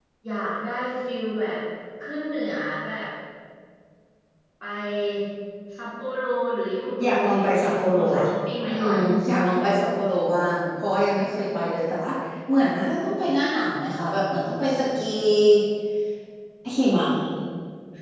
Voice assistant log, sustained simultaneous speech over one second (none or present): present